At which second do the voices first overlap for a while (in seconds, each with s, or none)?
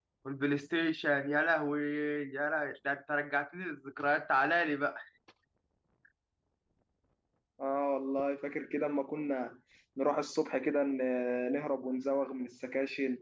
none